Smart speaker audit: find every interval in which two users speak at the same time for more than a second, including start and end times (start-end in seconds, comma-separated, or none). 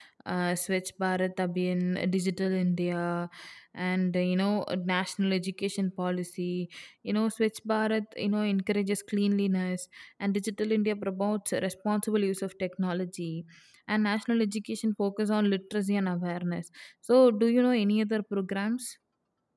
none